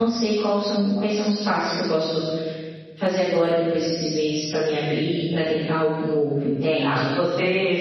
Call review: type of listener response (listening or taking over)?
taking over